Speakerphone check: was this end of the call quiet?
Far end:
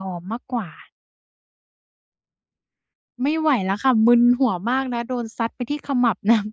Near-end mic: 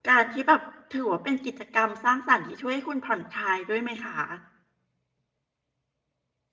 No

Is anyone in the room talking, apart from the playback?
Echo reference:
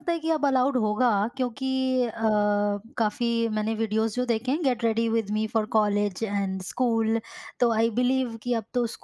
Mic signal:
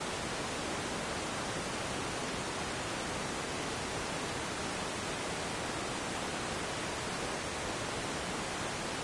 No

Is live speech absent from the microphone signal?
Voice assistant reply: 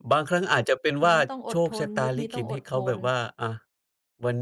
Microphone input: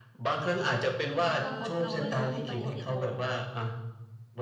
No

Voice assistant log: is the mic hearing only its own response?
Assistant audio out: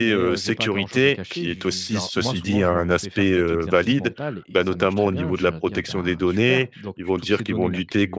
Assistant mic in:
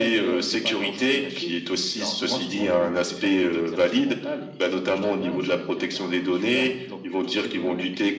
Yes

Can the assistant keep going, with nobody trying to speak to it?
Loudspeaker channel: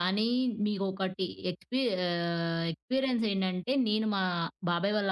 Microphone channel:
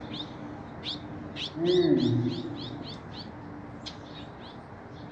No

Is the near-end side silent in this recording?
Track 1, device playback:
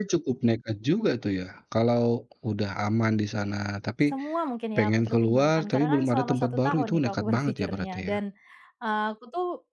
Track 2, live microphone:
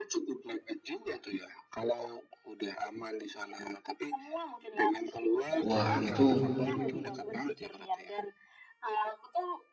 No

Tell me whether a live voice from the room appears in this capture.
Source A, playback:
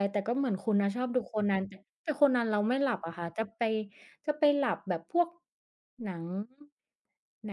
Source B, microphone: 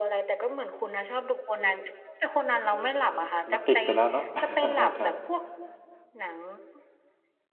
Yes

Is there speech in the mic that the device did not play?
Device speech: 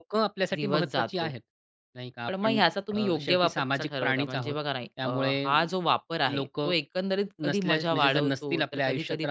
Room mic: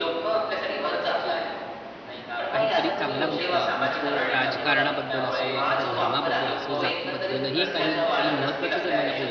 Yes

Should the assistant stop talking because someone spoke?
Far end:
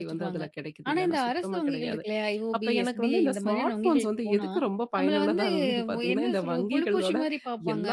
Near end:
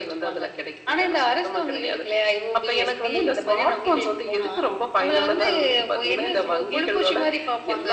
No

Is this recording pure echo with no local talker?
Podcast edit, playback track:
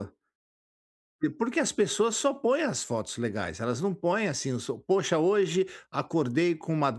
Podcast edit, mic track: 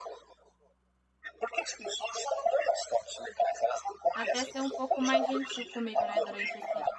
No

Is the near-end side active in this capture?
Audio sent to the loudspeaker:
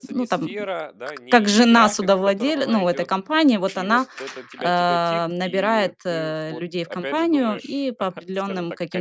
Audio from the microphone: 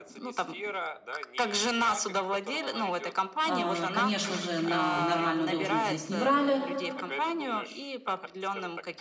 Yes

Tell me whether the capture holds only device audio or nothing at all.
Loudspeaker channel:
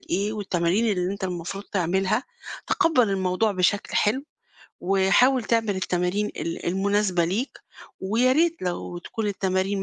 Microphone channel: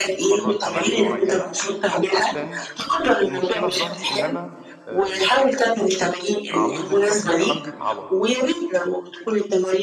No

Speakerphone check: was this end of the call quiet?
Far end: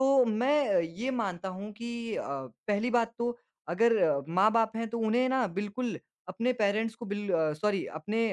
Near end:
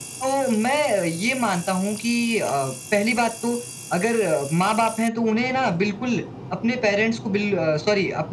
Yes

